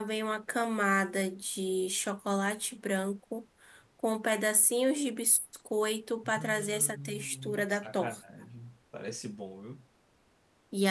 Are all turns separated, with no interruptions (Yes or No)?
No